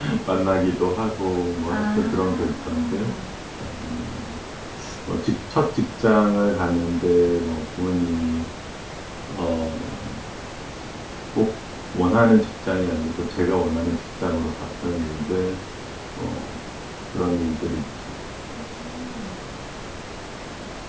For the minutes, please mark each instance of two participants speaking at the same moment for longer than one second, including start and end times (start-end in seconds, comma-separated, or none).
1.7-3.1